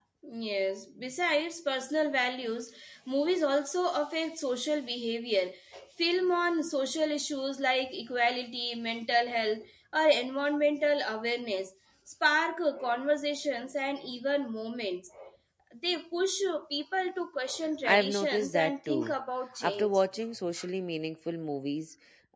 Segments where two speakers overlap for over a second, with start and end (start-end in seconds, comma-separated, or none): 17.8-19.1